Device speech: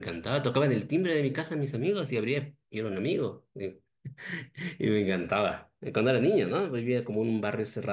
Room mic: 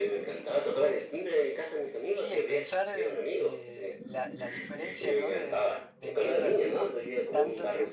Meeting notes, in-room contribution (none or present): present